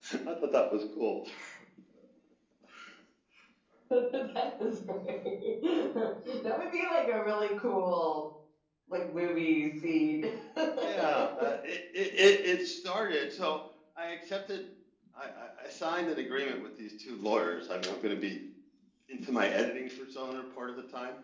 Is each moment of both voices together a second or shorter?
Yes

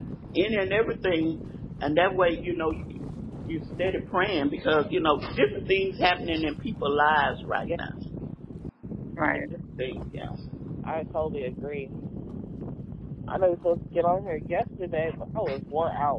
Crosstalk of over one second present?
No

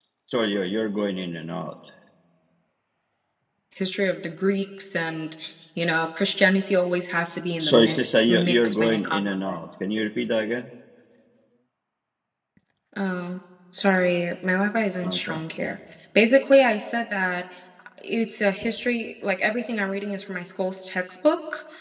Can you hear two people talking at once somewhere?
Yes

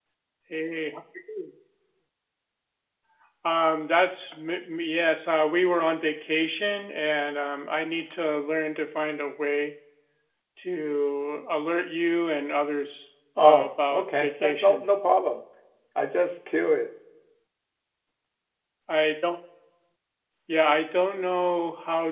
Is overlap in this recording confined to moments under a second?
No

